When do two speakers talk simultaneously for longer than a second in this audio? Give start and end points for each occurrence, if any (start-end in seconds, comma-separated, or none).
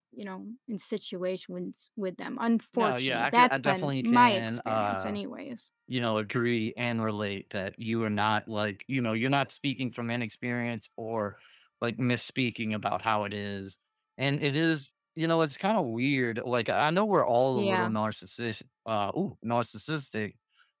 2.8-5.2